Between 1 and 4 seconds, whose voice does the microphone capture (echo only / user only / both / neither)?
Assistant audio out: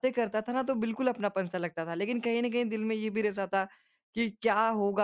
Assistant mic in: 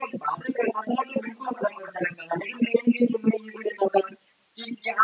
echo only